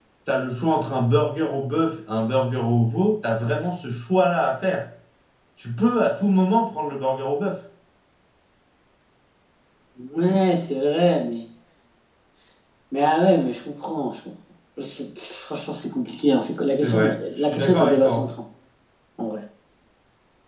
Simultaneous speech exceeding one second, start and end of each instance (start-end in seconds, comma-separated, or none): 16.7-18.2